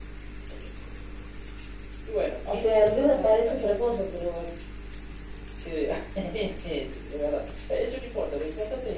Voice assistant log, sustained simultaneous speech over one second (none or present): present